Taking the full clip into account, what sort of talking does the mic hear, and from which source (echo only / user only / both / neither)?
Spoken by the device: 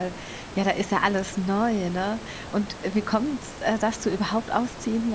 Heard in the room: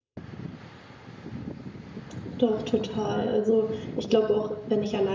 user only